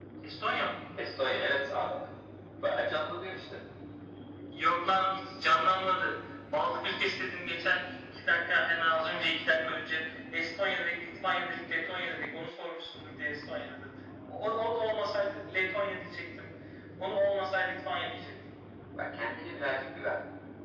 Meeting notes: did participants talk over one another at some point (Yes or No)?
No